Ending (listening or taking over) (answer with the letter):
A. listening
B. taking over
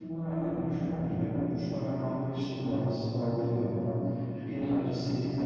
A